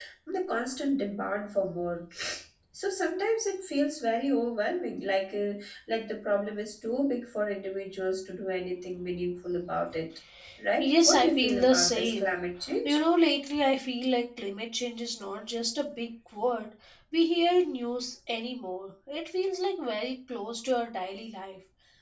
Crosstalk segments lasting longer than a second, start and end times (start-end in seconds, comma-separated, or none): 10.8-12.4